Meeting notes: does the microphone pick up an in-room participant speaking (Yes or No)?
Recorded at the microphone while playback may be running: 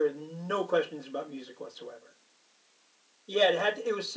No